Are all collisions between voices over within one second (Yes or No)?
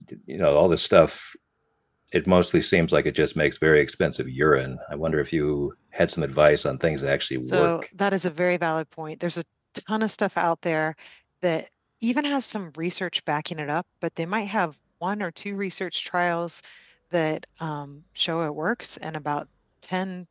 Yes